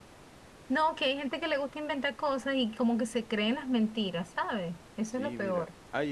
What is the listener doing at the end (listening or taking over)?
taking over